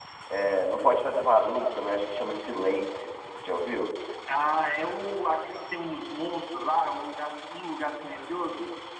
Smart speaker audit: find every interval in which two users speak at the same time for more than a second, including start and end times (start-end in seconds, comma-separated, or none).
none